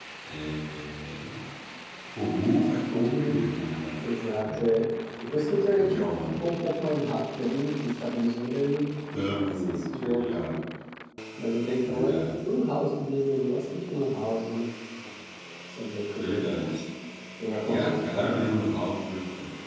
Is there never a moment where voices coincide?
No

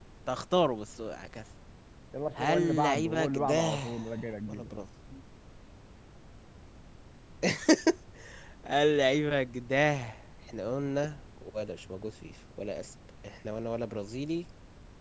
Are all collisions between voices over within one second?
No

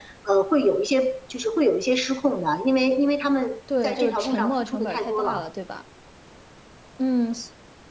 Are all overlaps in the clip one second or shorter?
No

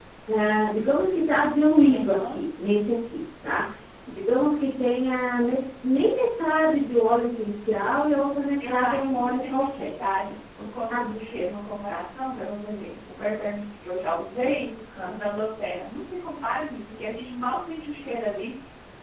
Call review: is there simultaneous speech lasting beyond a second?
Yes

